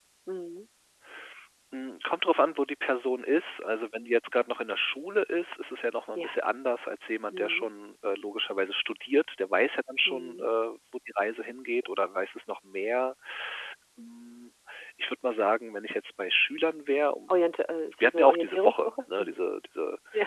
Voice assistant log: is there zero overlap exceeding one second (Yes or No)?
No